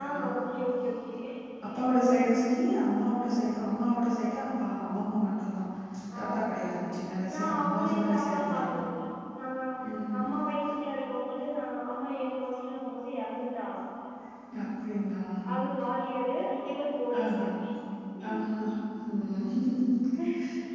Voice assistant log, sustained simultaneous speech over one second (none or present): present